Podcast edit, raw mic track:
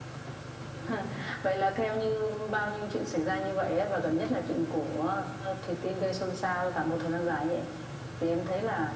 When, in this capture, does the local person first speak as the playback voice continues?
none

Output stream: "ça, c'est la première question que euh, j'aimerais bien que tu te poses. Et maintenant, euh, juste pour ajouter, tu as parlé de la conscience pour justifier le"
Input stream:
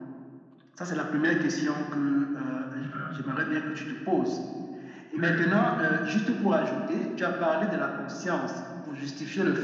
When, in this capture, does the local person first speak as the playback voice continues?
none

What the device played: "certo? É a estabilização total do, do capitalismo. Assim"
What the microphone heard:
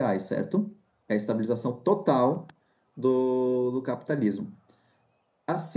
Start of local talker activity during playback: none

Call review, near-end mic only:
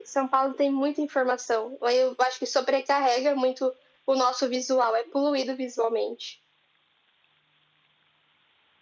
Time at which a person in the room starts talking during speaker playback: none

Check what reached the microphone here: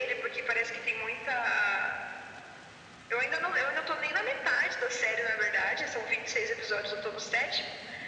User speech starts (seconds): none

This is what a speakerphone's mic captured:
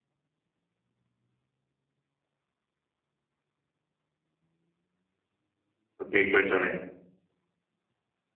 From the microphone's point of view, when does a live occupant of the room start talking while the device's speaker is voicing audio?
6.0 s

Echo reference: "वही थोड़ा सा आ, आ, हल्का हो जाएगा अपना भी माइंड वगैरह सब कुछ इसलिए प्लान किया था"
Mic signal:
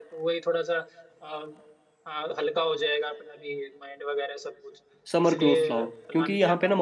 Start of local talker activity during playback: 5.1 s

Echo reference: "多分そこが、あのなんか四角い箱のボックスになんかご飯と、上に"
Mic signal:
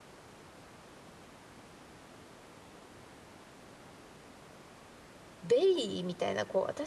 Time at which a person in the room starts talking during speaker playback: 5.4 s

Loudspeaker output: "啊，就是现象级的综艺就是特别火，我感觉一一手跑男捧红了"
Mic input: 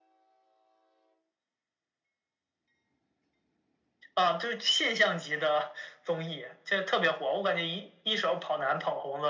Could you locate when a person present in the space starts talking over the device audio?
none

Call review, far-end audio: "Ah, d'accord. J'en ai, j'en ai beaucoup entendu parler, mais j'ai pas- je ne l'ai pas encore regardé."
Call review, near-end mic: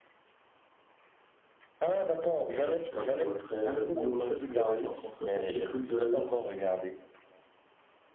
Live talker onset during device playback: 2.5 s

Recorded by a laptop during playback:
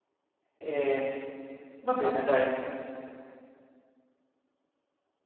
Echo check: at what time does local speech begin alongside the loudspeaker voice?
0.6 s

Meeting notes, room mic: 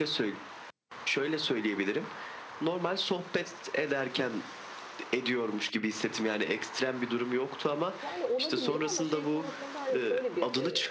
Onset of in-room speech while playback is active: 8.0 s

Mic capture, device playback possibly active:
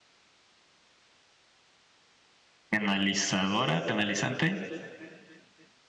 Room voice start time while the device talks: 2.7 s

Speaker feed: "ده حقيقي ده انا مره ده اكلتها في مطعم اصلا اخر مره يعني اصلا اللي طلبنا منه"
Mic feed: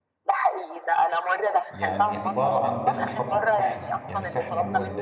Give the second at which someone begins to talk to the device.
1.7 s

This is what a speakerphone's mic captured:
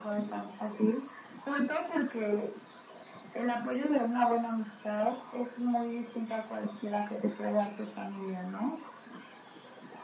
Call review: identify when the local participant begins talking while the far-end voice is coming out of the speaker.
none

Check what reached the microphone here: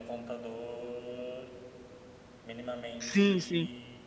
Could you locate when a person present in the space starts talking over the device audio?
3.0 s

